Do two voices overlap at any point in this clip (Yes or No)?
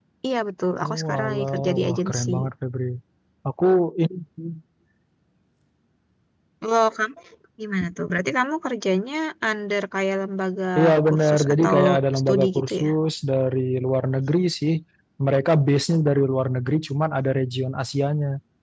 Yes